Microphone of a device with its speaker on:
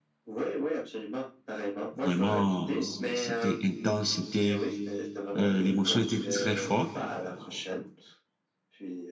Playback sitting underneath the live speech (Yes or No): Yes